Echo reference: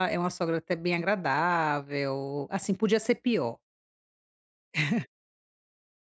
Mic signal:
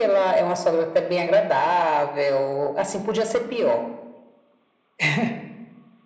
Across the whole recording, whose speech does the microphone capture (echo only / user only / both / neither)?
echo only